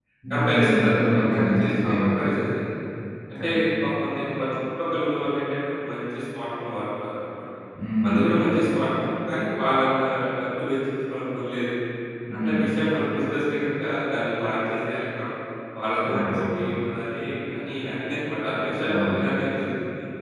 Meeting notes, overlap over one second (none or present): present